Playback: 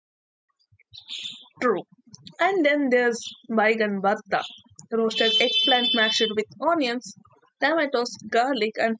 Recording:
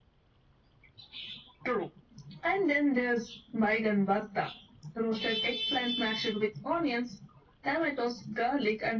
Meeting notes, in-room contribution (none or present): none